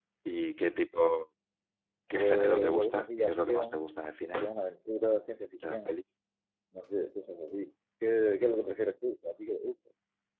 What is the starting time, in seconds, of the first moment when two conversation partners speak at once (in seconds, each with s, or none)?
2.1 s